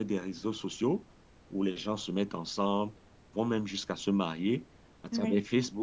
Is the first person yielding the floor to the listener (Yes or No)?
No